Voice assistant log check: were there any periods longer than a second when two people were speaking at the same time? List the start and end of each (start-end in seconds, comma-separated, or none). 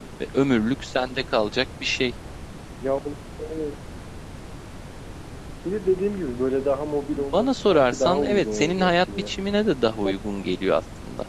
7.2-9.3